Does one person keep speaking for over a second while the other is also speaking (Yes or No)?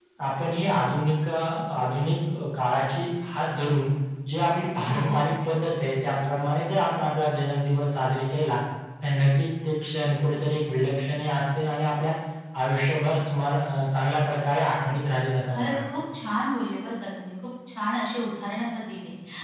No